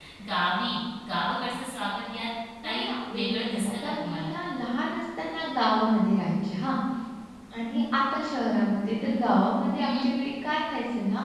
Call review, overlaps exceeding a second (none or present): present